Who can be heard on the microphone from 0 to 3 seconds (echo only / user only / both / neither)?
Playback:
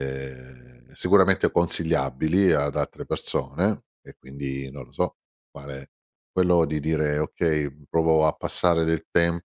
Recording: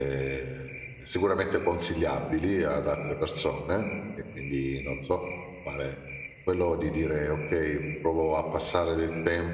echo only